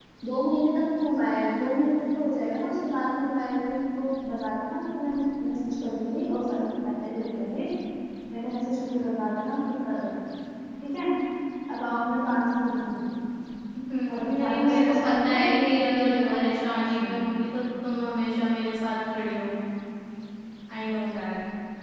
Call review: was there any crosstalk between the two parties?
Yes, from 14.2 s

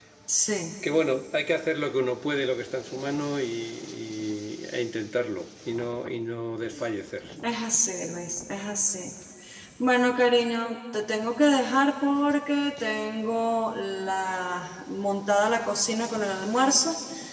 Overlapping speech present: No

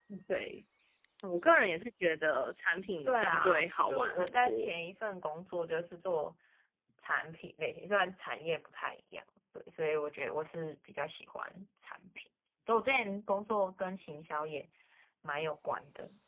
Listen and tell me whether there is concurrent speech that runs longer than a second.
Yes, from 3.0 s

